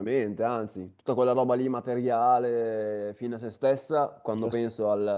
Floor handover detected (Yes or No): No